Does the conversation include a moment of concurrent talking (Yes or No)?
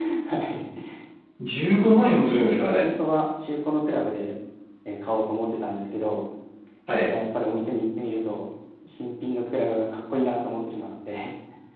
No